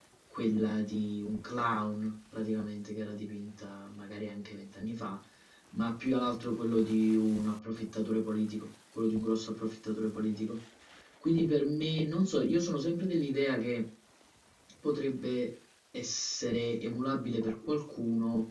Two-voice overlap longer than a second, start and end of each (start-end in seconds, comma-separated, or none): none